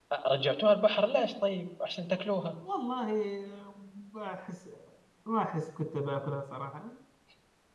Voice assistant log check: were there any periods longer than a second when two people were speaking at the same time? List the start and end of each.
none

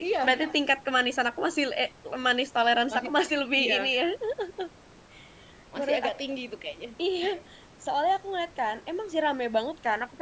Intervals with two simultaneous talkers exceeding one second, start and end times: none

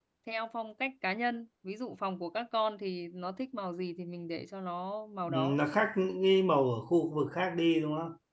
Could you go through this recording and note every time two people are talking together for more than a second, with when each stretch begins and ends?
none

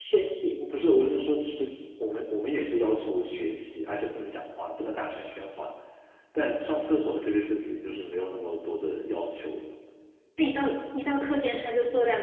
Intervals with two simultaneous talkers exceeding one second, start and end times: none

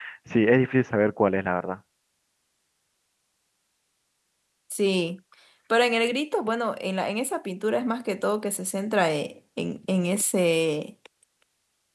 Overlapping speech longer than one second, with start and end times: none

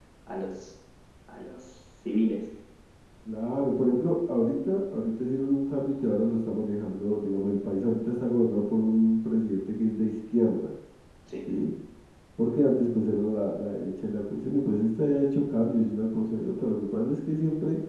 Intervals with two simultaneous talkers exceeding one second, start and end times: none

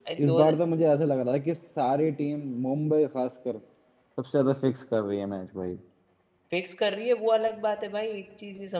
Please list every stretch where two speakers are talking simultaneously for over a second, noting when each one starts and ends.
none

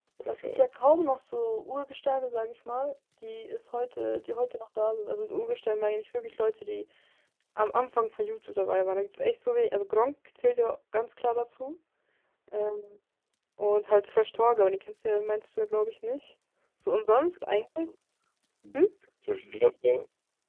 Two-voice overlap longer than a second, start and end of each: none

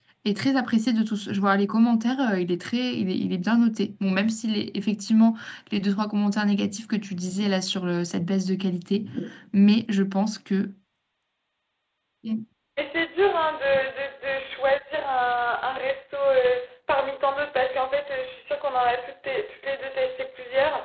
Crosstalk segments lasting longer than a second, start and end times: none

